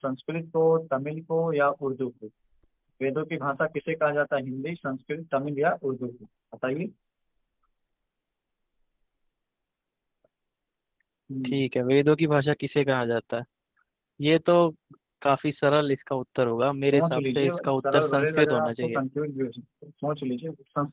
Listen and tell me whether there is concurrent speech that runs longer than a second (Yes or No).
Yes